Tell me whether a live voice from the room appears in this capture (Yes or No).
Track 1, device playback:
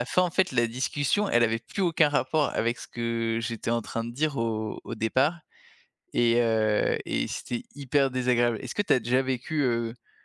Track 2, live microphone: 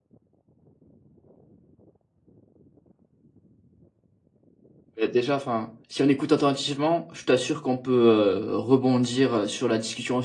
Yes